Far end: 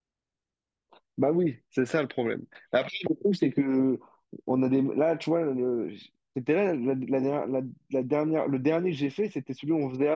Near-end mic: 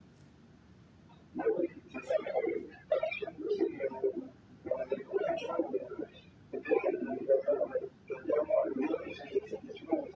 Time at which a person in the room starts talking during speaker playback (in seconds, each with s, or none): none